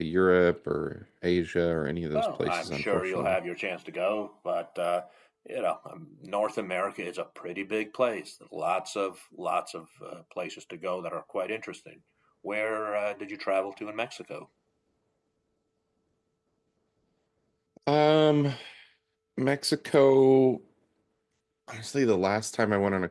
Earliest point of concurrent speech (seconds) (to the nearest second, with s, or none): 2 s